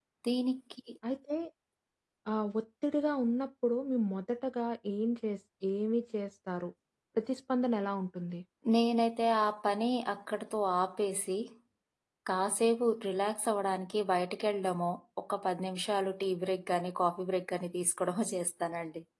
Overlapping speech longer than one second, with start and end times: none

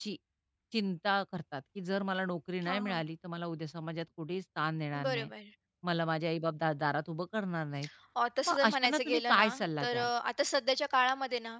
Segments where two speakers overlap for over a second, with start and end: 8.5-10.1

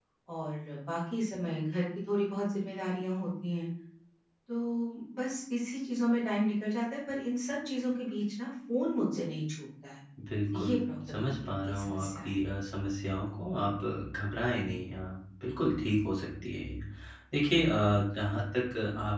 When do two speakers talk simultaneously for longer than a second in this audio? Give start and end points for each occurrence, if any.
11.1-12.3

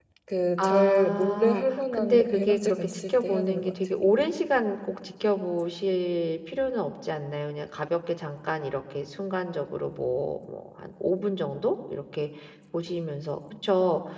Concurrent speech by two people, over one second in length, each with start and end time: 0.6-3.7

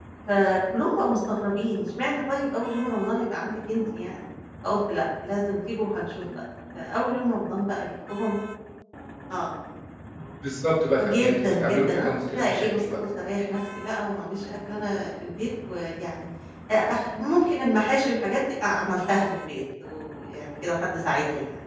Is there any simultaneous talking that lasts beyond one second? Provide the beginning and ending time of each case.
11.0-12.8

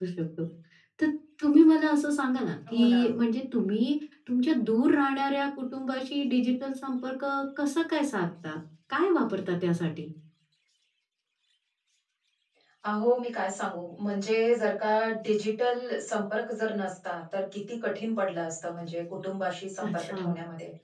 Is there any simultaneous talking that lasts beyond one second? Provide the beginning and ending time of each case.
none

